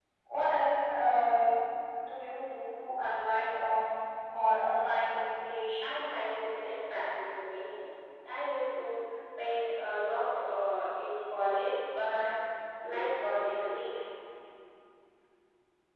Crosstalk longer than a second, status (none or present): none